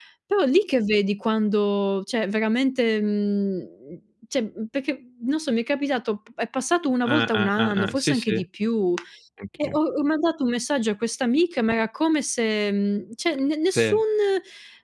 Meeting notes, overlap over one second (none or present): present